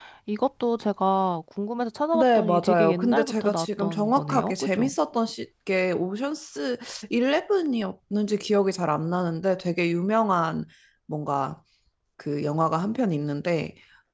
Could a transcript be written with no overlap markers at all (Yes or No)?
No